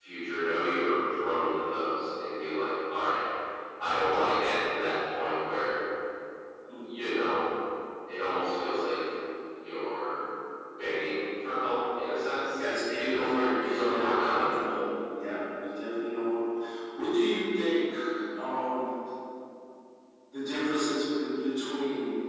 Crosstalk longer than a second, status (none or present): present